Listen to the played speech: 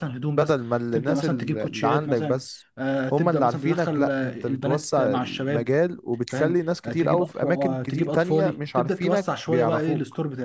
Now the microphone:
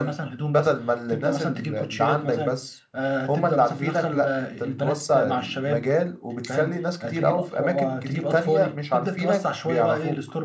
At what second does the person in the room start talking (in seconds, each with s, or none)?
none